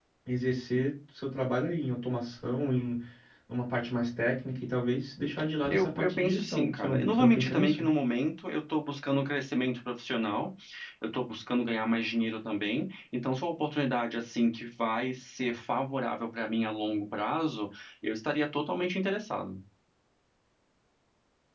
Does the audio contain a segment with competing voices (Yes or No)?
Yes